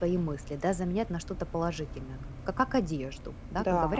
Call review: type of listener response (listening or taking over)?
listening